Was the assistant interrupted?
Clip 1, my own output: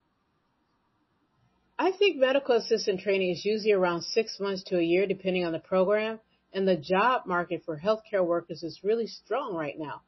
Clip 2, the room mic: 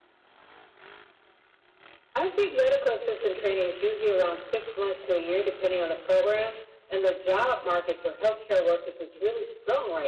No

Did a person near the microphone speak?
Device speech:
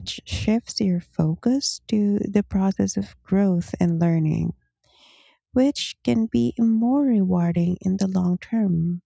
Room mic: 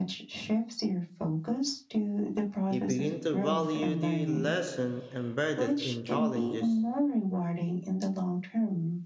Yes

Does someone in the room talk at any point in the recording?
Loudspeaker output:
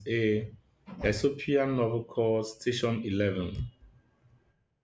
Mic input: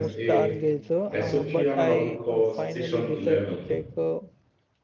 Yes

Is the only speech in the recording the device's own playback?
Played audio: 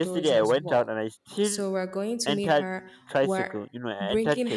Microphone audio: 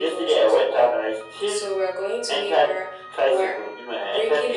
Yes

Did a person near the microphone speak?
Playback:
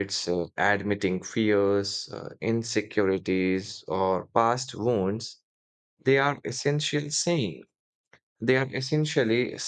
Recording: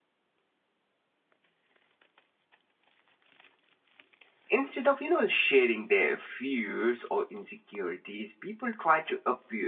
Yes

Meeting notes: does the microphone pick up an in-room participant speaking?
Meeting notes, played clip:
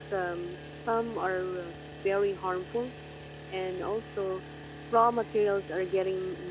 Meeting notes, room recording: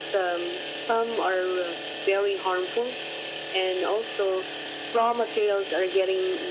No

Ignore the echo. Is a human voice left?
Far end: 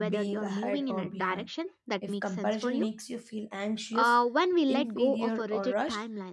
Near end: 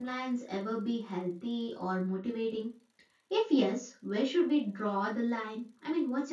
Yes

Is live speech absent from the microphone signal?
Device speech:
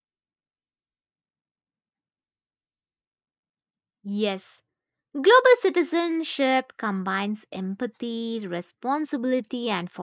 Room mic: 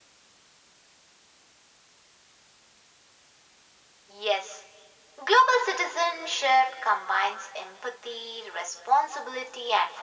Yes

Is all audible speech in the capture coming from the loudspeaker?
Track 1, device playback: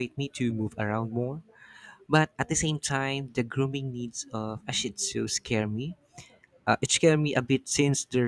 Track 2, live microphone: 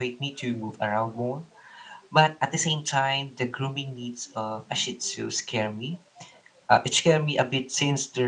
Yes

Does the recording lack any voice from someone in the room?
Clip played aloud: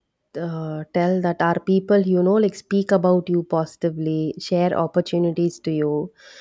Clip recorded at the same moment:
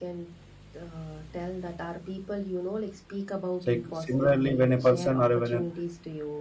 No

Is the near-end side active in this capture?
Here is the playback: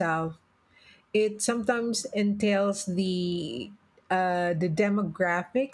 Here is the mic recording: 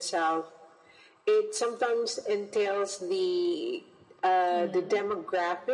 Yes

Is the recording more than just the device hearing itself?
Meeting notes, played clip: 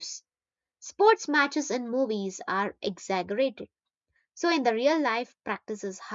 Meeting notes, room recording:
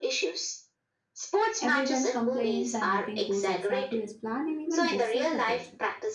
Yes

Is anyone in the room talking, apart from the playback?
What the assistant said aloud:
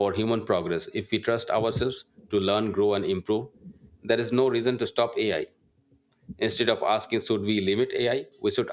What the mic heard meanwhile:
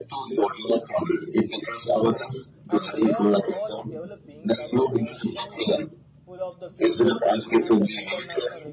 Yes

